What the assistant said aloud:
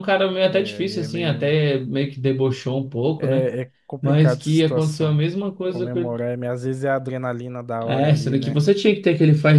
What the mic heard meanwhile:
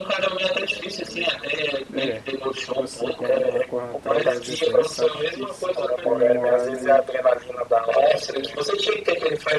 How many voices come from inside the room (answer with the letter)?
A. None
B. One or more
B